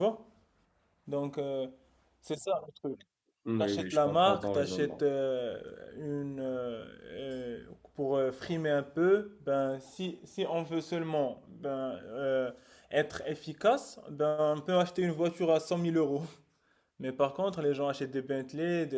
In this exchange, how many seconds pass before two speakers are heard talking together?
3.6 s

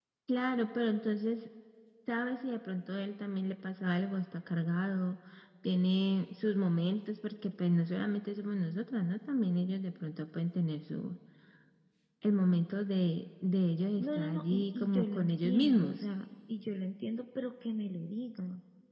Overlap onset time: 14.0 s

